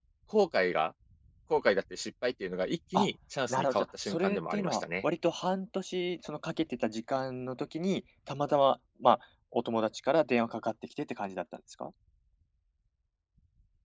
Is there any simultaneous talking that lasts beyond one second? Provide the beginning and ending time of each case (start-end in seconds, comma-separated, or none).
3.5-4.8